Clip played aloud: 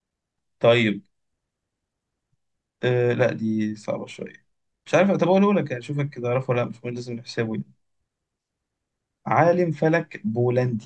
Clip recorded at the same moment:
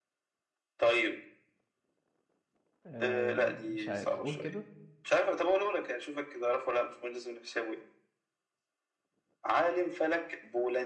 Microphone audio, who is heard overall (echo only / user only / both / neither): both